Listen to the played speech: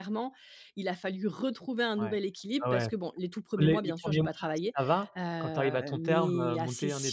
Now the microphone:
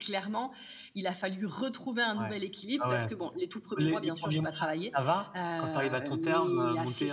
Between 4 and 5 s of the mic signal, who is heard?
echo only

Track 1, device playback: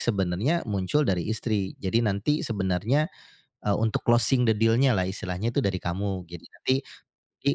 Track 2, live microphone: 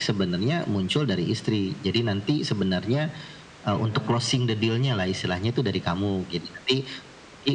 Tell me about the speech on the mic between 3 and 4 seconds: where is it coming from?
both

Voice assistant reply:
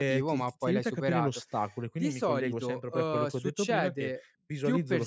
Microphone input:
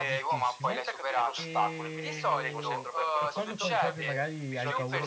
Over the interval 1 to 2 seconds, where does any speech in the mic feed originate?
both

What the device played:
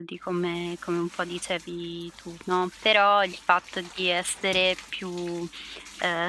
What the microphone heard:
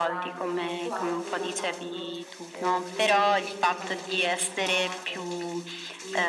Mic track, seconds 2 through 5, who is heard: both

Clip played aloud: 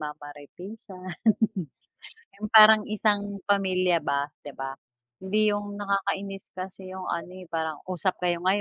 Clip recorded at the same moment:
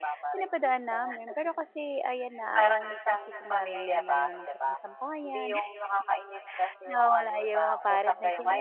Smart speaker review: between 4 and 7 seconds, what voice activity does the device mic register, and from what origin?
both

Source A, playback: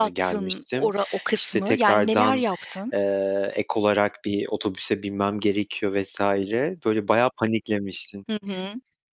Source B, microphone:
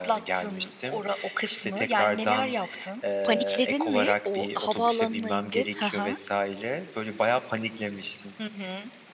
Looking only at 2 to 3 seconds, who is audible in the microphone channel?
echo only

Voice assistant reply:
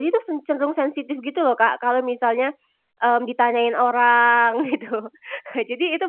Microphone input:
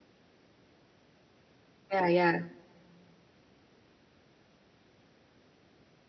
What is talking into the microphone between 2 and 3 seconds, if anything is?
user only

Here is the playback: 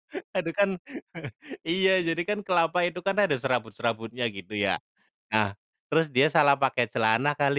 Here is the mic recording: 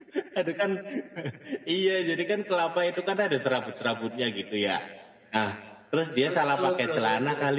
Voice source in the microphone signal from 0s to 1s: echo only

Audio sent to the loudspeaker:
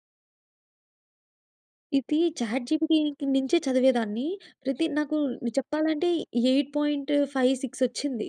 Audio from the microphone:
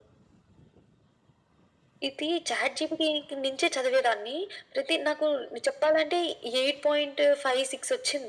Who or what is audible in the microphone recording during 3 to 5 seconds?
echo only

